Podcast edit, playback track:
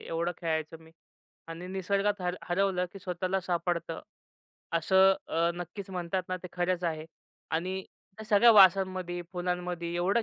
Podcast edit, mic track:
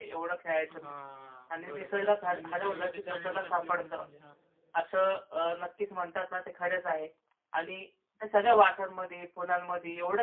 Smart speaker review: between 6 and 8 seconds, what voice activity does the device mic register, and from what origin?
echo only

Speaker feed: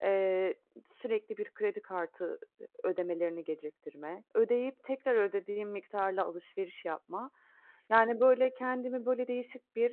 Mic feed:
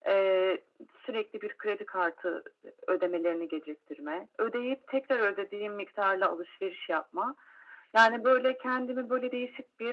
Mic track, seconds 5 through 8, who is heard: echo only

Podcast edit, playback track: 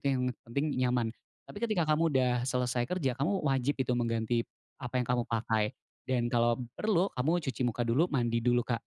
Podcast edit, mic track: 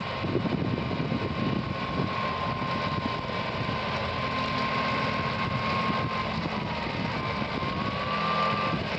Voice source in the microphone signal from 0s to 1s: neither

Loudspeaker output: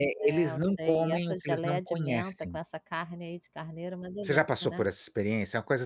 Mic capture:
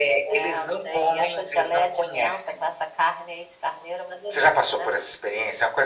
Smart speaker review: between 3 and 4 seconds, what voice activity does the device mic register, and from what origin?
echo only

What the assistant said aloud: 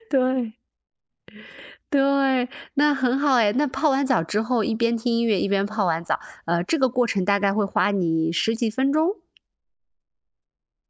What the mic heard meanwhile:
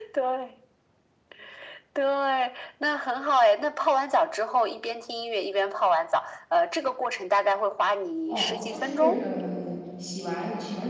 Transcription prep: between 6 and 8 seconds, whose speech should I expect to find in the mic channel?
echo only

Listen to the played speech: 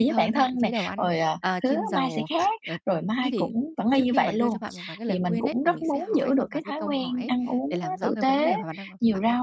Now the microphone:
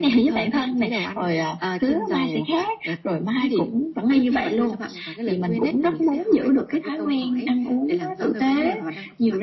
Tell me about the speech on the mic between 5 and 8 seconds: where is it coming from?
echo only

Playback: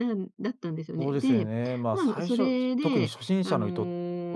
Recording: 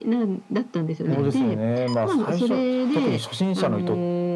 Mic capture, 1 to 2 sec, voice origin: both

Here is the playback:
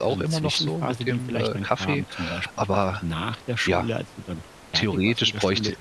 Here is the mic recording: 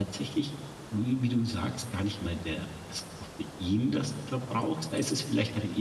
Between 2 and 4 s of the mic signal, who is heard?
user only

